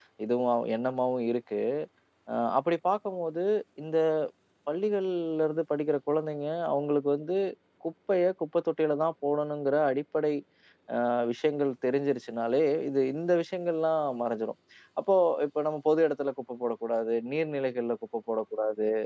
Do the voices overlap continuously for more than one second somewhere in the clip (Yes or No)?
No